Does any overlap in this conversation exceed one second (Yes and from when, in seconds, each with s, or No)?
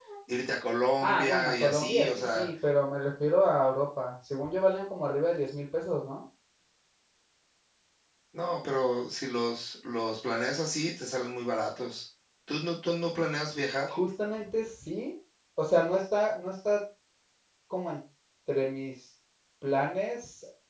Yes, from 1.0 s